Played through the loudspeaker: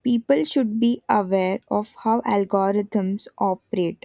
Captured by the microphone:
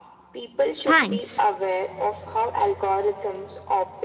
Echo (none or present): present